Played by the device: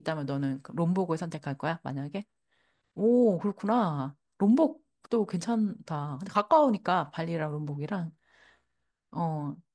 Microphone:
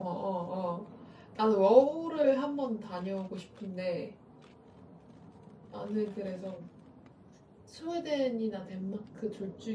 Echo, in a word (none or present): none